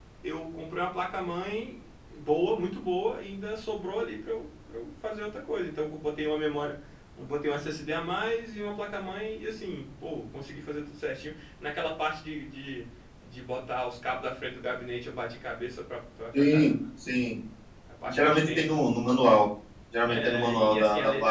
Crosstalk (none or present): present